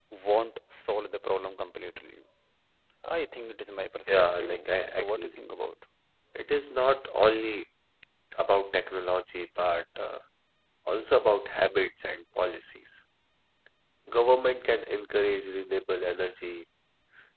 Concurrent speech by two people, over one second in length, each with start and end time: 4.1-5.3

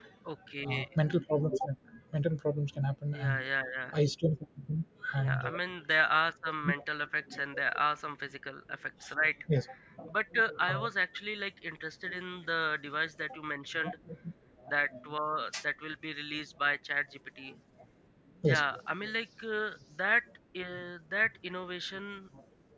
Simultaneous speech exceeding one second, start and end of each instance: none

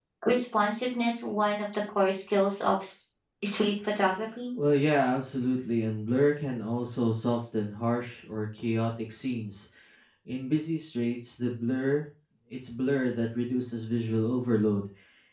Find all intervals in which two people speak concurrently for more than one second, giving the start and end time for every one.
none

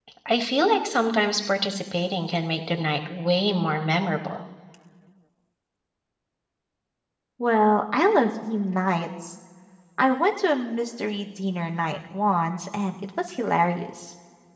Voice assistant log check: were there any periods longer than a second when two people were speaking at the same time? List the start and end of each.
none

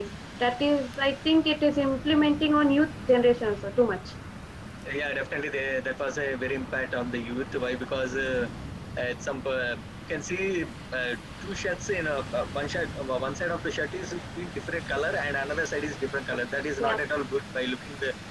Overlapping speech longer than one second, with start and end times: none

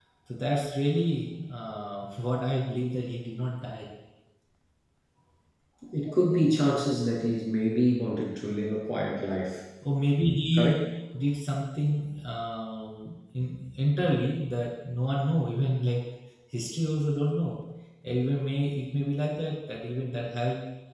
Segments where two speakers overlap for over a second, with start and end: none

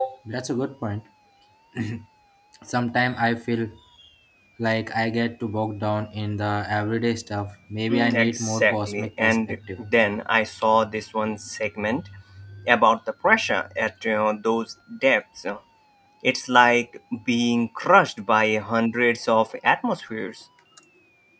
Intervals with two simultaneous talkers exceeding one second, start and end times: 7.9-9.8

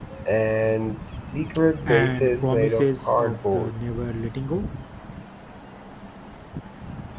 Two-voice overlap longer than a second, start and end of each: 1.9-3.7

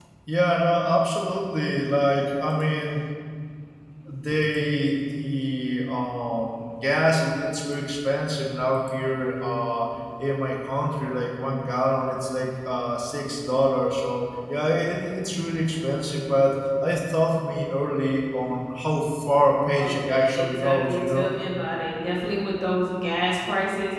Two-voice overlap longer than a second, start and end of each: 19.8-21.3

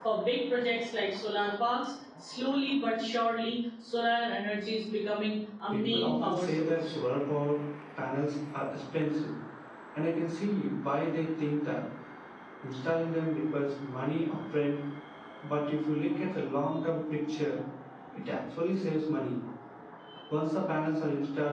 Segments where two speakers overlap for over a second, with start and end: 5.7-6.9

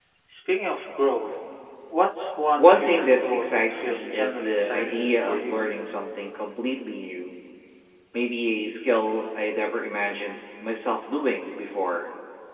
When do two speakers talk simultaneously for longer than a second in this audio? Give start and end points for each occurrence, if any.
2.6-5.6

